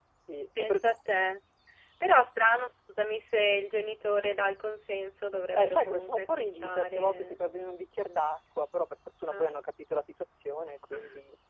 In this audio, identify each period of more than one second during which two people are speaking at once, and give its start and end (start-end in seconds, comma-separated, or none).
5.6-7.4